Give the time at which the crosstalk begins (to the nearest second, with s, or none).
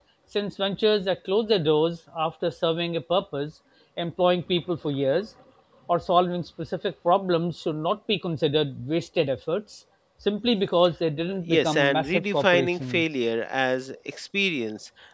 11 s